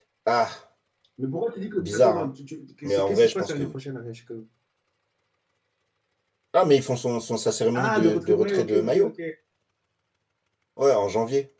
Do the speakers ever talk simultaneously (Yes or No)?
Yes